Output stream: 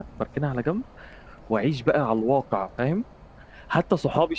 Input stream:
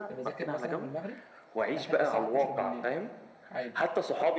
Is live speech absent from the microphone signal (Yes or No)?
No